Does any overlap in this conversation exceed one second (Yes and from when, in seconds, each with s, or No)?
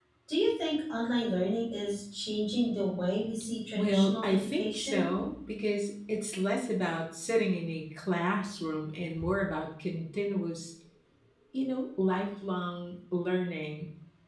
Yes, from 3.8 s